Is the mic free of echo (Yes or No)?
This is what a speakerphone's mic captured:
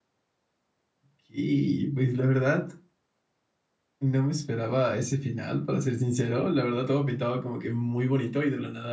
Yes